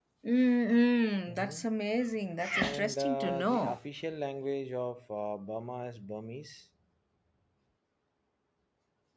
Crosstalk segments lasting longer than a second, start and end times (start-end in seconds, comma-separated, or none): 2.5-3.8